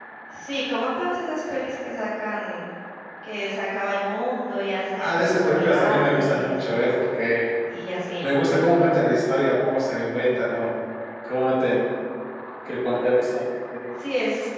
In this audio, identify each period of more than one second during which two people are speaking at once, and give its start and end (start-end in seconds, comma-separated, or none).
5.0-6.5